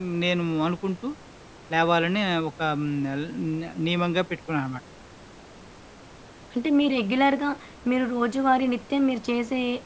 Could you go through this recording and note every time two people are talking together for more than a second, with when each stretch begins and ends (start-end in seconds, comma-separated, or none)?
none